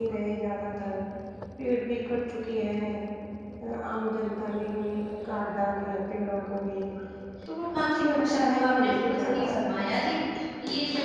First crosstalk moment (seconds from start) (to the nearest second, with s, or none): 8 s